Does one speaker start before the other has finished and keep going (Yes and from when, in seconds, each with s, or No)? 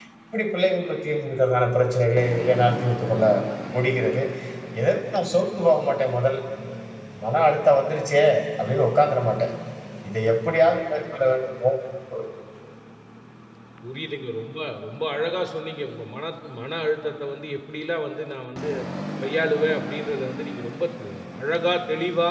No